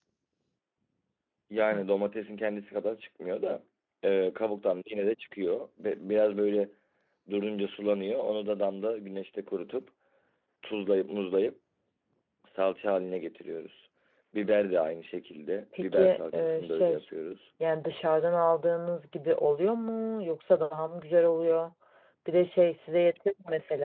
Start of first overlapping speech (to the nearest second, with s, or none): 16 s